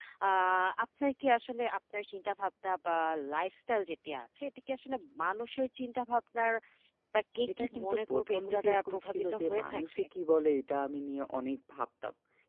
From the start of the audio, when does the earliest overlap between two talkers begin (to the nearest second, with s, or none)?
8 s